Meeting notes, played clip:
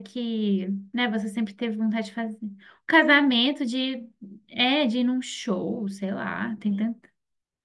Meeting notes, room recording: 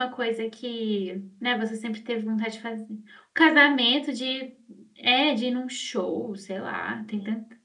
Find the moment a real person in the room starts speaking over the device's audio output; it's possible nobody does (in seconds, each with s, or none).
none